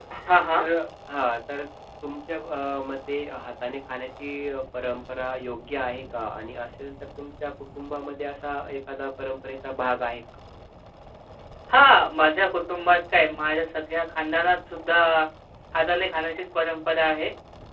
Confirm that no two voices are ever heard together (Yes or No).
Yes